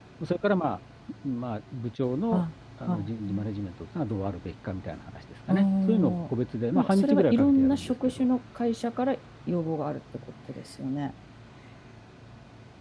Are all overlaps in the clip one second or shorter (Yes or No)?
No